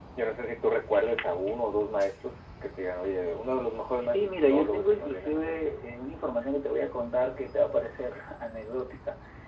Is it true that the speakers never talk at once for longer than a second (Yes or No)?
No